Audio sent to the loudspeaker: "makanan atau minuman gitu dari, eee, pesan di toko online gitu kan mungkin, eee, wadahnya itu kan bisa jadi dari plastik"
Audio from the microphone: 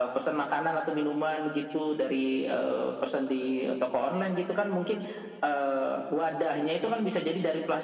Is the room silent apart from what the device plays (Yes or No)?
Yes